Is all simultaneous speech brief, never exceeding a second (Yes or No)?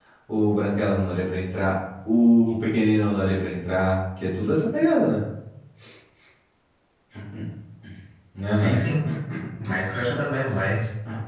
Yes